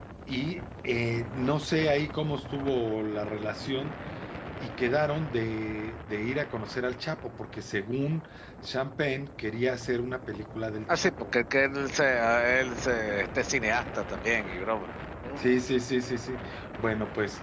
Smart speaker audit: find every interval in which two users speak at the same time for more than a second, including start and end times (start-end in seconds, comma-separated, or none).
none